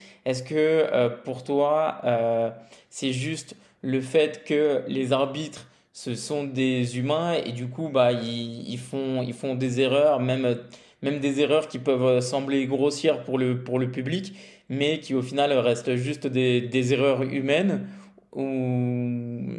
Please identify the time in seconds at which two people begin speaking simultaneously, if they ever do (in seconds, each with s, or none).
none